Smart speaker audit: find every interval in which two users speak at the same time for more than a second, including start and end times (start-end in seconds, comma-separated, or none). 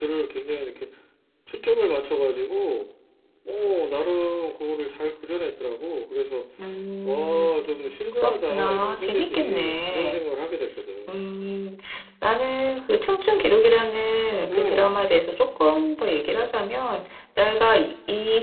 8.2-10.2